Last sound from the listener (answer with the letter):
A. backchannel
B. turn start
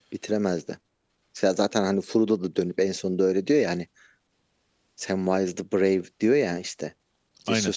A